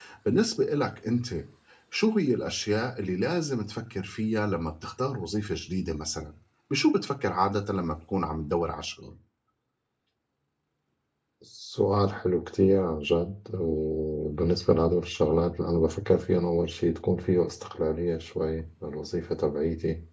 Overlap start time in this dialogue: none

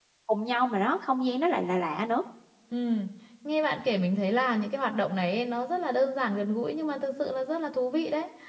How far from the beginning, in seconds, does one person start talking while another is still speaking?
none

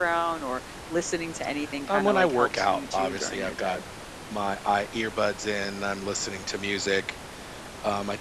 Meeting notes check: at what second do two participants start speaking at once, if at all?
1.9 s

